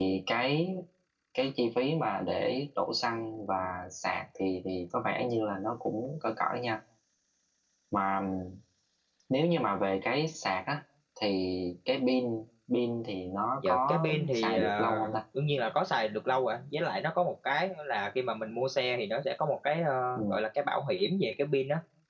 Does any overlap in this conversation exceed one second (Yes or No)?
Yes